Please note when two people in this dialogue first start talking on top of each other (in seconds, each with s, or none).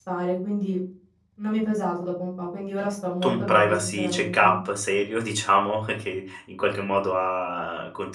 3.2 s